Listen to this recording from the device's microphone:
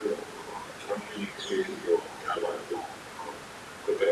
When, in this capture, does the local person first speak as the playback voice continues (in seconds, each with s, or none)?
none